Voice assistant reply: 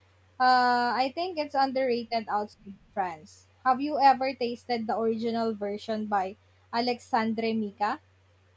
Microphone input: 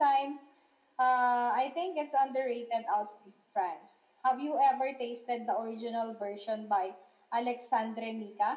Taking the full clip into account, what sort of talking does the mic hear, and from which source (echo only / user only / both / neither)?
echo only